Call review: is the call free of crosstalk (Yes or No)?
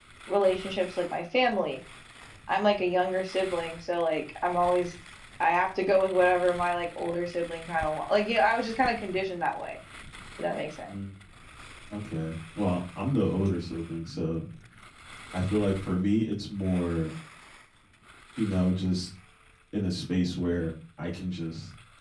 Yes